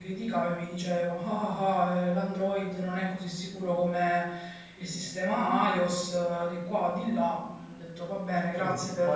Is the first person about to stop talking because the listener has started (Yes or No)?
Yes